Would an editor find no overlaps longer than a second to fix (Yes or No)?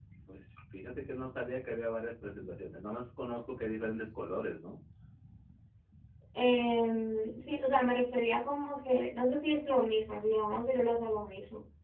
Yes